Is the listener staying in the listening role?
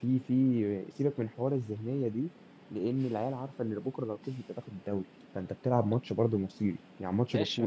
No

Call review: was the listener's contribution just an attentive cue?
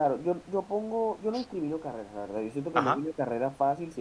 Yes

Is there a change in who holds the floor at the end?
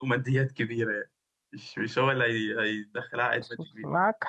Yes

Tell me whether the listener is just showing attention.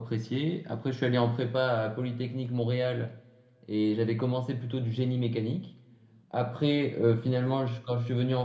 Yes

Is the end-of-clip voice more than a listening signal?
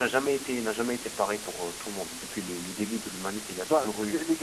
Yes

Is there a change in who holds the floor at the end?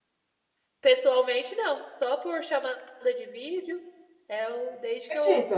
No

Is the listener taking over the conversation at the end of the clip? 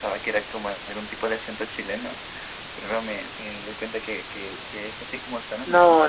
Yes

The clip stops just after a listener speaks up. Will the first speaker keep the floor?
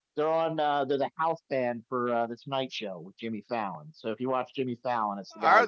No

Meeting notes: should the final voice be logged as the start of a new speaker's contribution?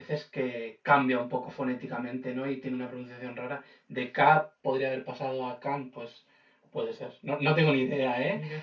No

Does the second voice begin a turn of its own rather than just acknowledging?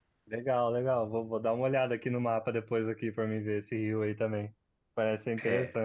No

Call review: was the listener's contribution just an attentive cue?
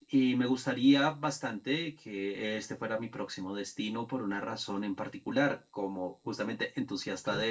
Yes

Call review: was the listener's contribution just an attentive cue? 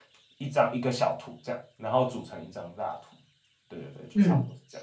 No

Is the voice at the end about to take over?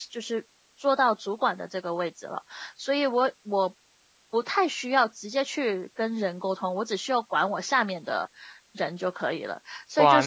Yes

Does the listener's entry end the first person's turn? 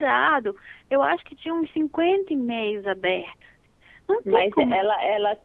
Yes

